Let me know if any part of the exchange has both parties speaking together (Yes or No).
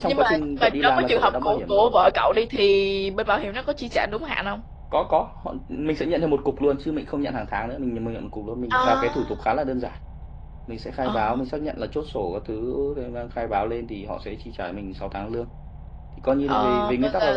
Yes